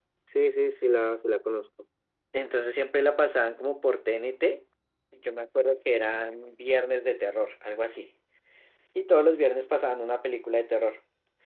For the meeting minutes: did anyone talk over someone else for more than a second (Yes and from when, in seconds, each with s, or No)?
No